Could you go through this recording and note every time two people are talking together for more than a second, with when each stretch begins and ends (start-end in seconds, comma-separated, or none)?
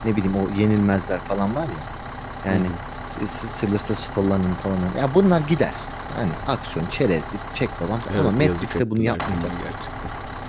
8.2-9.5